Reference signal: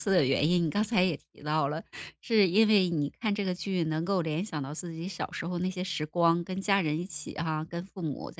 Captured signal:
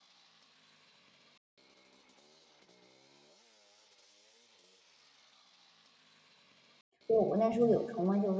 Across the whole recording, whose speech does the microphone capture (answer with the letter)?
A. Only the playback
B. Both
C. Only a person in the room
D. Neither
C